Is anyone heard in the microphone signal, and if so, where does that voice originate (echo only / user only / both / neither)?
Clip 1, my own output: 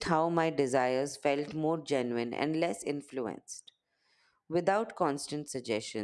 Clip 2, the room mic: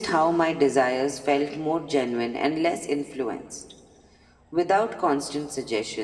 echo only